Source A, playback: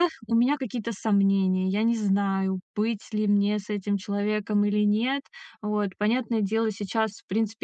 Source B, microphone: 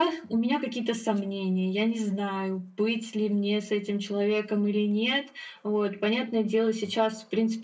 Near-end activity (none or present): none